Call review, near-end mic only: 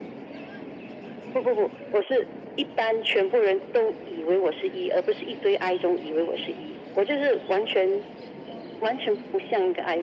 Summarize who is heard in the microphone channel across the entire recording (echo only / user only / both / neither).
echo only